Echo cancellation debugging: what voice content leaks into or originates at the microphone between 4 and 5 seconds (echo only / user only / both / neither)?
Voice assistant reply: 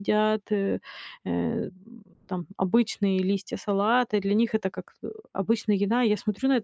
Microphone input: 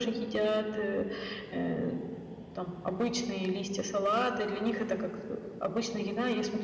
echo only